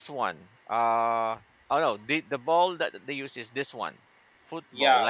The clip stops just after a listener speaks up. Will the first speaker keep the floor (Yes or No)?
No